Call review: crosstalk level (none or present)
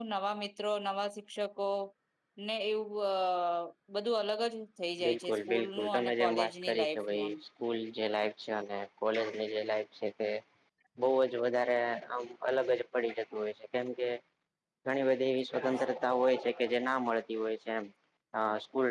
present